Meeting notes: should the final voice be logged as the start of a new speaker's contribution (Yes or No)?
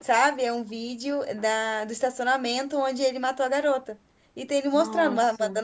No